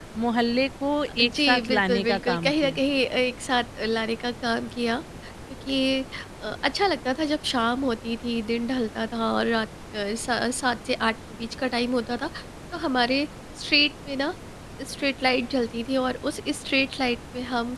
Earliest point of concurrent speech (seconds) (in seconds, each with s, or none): 1.2 s